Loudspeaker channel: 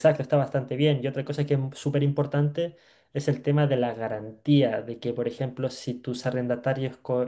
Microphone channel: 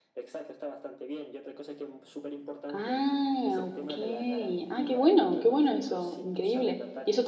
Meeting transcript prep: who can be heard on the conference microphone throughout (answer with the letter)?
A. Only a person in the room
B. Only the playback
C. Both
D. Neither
C